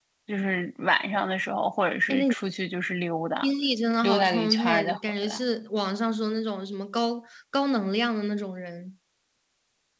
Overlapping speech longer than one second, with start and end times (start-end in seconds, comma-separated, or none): 4.0-5.4